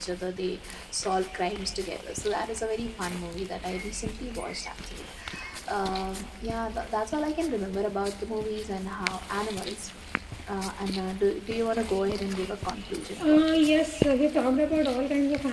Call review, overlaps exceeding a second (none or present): none